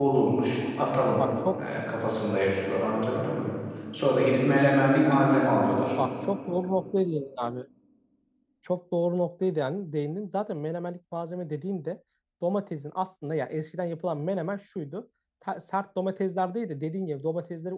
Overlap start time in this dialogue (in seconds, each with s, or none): none